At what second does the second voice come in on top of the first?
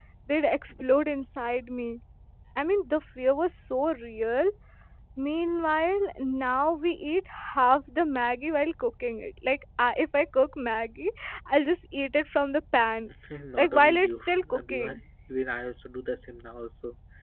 13.6 s

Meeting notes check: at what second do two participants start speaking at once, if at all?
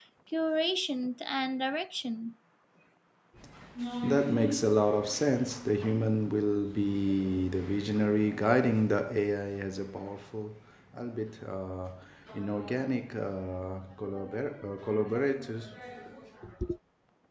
none

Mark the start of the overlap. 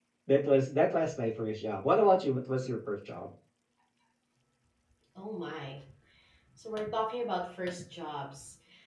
none

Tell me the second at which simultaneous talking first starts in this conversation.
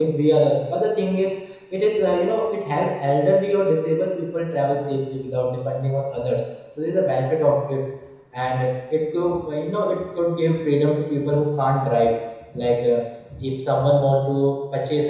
none

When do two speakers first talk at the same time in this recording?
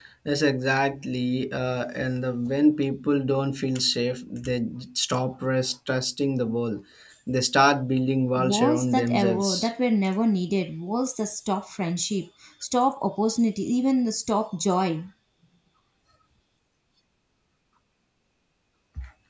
8.3 s

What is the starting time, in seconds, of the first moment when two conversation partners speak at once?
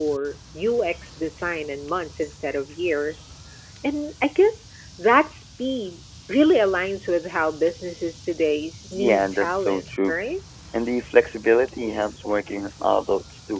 8.9 s

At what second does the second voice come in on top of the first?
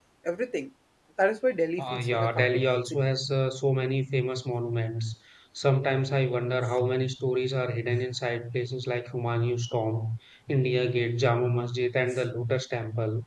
1.8 s

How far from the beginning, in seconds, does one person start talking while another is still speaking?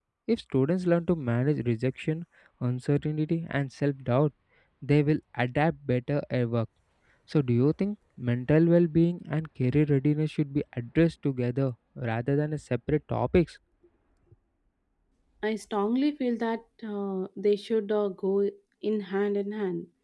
none

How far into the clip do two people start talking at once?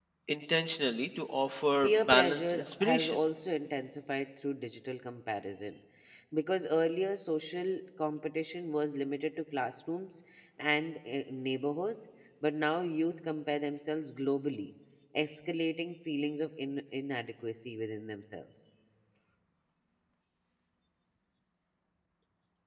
1.8 s

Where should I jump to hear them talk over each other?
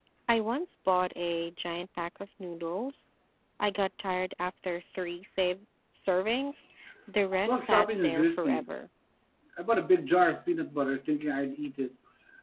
7.4 s

